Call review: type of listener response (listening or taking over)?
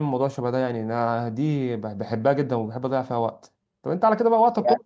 listening